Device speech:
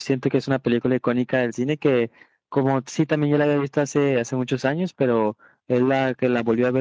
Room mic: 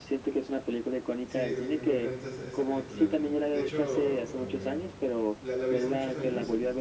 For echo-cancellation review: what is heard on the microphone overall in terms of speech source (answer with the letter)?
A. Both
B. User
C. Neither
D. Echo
A